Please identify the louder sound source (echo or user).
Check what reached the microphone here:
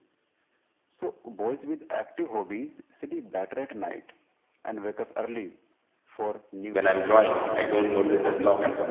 user